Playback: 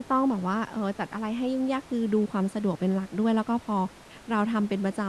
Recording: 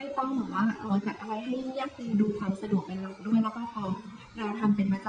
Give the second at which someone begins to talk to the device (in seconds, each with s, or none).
none